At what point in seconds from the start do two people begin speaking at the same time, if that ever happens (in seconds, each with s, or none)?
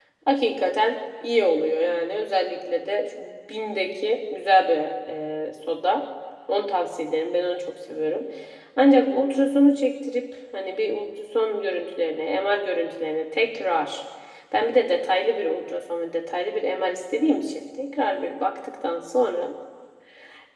none